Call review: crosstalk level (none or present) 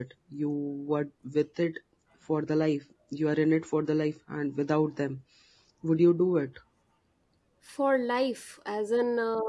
none